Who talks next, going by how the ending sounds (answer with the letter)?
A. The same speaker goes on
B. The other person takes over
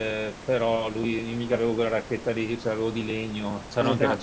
B